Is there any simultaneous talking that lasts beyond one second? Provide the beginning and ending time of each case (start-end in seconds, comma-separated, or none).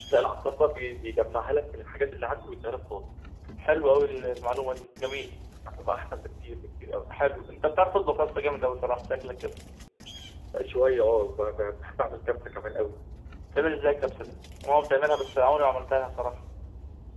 none